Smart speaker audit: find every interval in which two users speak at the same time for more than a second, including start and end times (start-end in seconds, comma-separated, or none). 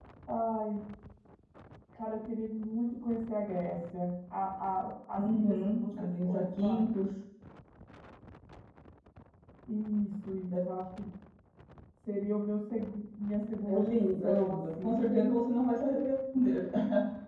5.2-6.8, 13.7-15.3